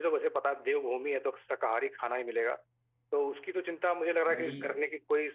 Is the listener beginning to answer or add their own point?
No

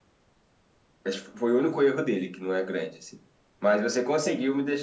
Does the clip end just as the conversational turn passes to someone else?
No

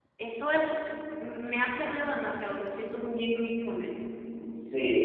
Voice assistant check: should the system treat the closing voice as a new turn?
Yes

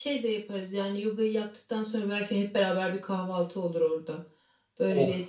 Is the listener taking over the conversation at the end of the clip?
Yes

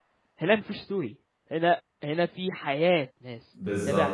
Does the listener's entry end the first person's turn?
Yes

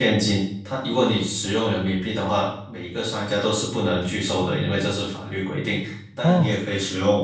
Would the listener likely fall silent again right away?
Yes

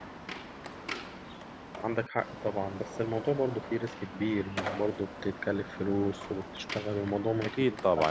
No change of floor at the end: No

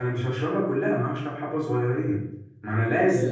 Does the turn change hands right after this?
No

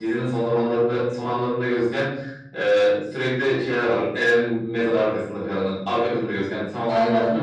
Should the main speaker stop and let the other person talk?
Yes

